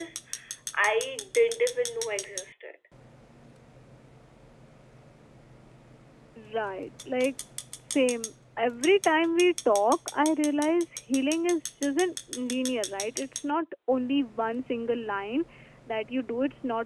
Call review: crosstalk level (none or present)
none